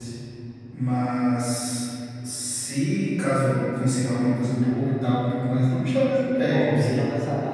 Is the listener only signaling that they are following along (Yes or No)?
No